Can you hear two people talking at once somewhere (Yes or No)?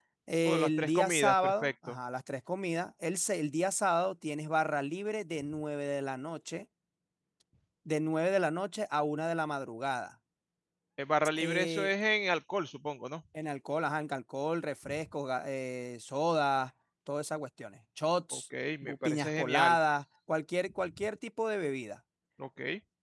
Yes